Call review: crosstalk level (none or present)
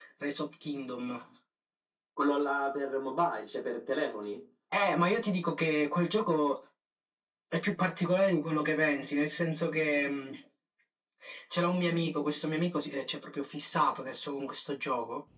none